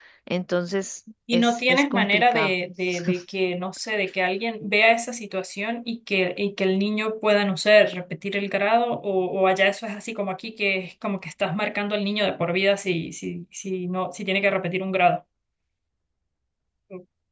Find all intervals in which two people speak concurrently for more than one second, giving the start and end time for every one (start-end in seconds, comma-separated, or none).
1.3-2.5